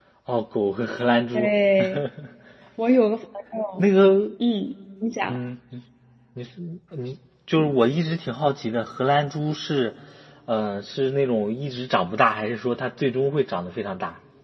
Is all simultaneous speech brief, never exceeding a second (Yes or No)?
Yes